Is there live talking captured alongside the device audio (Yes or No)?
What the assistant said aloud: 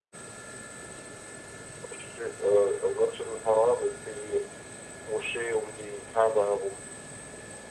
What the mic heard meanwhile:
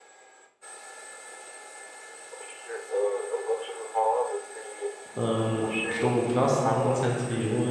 Yes